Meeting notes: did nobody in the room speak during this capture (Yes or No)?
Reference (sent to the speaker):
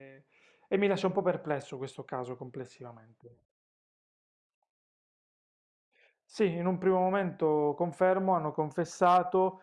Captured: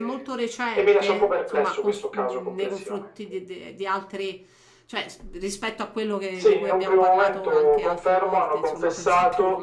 No